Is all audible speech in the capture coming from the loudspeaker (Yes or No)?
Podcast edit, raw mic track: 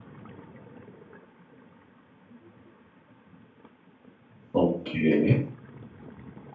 No